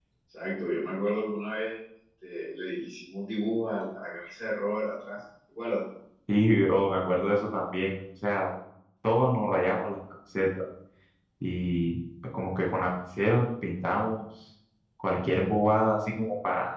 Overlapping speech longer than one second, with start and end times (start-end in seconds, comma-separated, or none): none